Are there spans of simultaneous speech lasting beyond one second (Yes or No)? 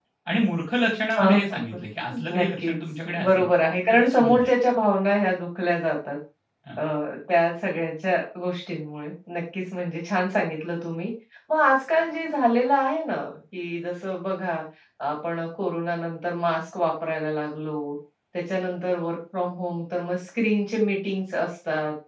Yes